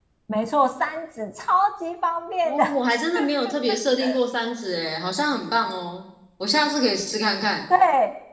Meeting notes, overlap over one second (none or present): none